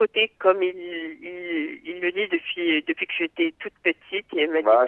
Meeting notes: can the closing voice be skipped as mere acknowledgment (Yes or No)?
No